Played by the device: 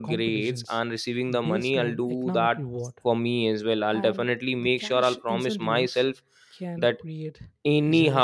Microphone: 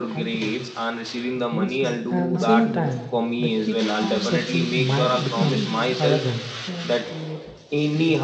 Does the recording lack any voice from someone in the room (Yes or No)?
No